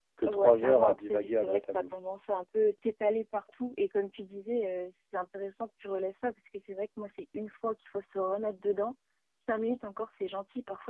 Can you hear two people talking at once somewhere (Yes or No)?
Yes